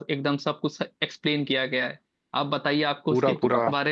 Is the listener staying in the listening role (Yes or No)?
Yes